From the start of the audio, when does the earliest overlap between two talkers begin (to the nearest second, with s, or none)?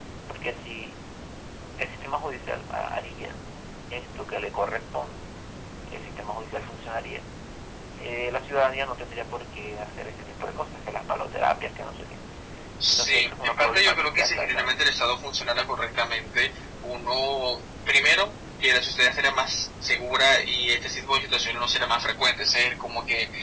13 s